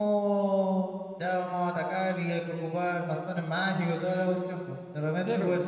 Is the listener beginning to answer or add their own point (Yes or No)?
No